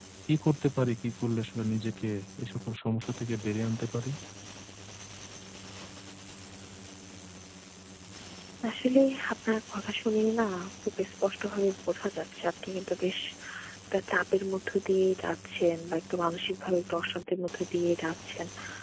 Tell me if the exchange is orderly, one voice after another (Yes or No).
Yes